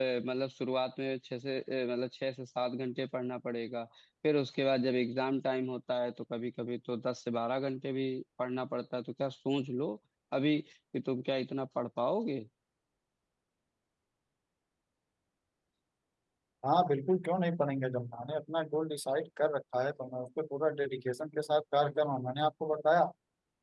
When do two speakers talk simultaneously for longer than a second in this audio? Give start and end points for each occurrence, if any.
none

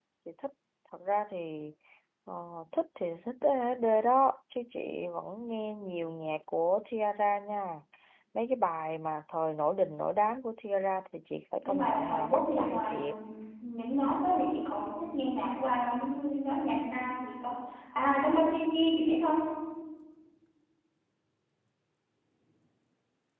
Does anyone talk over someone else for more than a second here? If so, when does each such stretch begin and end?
11.6-13.1

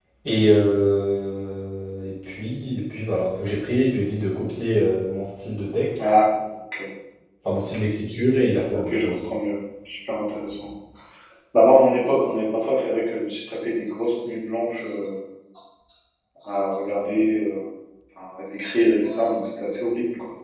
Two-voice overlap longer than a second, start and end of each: none

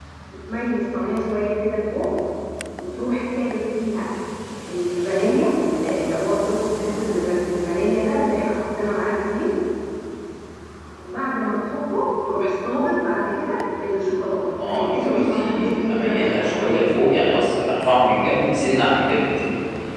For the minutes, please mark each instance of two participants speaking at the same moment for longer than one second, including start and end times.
14.6-16.9

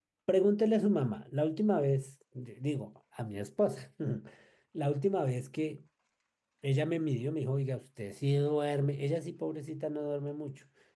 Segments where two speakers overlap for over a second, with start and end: none

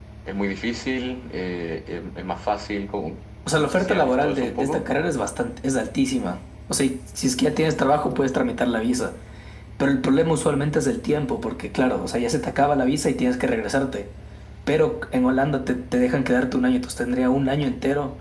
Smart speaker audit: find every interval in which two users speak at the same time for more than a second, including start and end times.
3.5-4.8

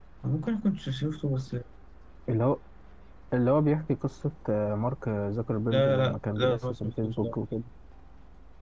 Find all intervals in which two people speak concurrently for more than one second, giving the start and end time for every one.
5.7-7.3

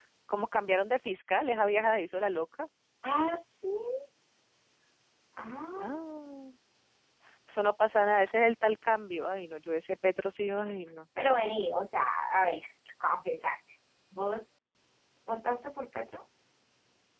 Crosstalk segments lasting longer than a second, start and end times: none

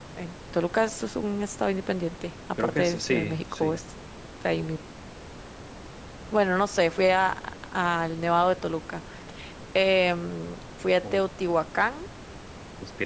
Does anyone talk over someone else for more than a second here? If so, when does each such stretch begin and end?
2.6-3.8

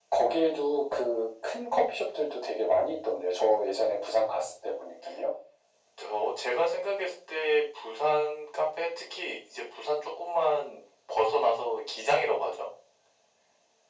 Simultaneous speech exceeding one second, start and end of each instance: none

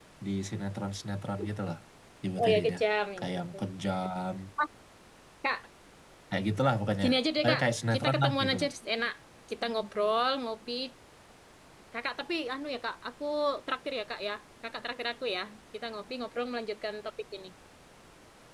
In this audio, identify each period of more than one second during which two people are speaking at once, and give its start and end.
7.0-8.7

